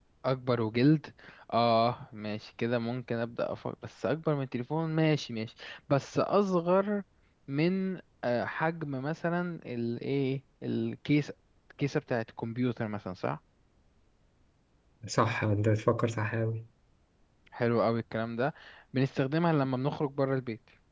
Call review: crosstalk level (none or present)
none